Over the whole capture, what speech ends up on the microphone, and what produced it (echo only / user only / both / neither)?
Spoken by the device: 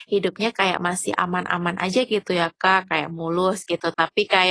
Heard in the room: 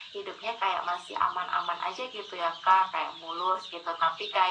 echo only